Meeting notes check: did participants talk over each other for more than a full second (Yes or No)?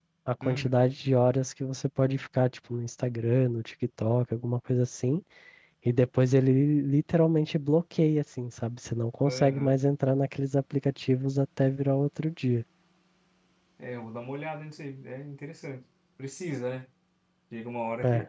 No